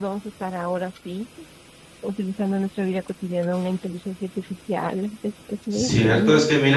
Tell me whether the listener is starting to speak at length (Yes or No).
Yes